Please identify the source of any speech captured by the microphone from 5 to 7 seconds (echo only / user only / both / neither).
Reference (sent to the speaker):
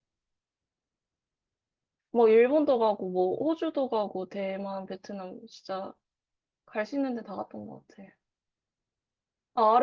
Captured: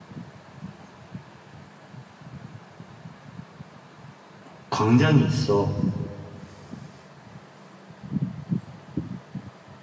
user only